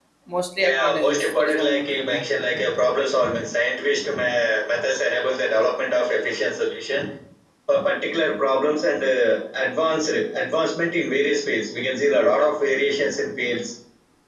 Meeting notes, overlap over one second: present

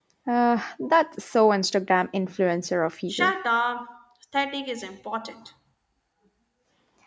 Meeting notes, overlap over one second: none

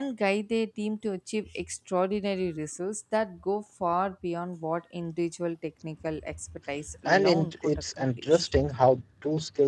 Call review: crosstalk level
present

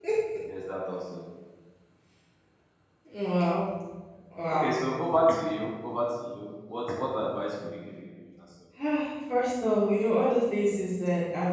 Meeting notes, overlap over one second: none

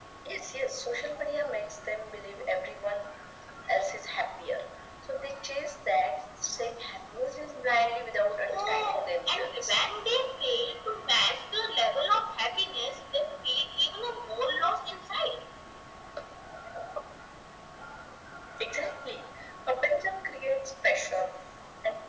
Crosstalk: present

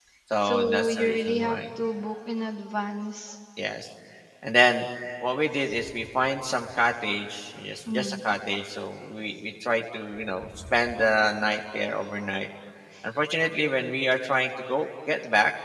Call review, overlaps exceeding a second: present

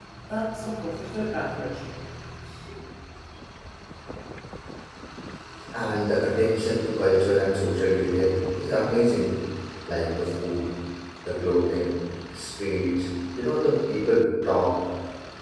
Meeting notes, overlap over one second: none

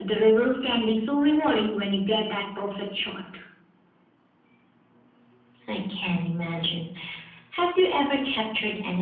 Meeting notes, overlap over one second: none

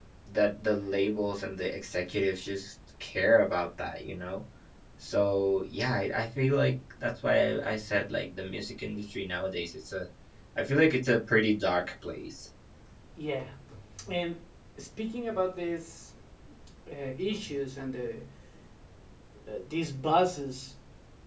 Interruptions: none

